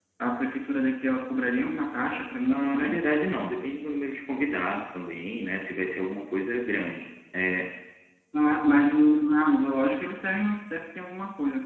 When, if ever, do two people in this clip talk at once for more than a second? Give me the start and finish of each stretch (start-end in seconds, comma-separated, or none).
none